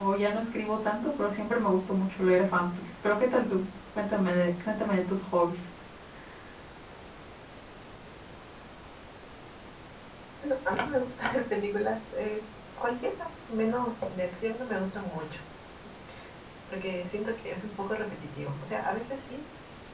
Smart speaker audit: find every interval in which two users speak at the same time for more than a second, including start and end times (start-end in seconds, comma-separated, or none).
none